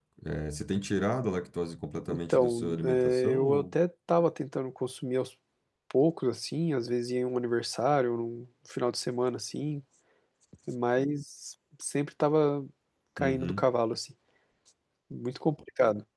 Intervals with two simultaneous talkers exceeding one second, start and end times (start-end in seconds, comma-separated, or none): 2.1-3.7